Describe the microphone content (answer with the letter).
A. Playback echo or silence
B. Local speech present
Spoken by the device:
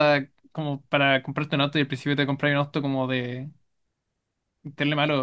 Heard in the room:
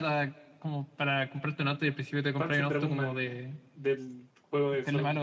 B